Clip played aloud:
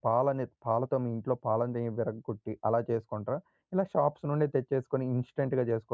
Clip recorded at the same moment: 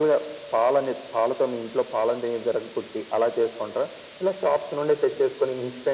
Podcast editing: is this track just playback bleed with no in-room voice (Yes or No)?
Yes